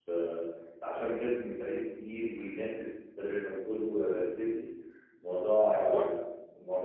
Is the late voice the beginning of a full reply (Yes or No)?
No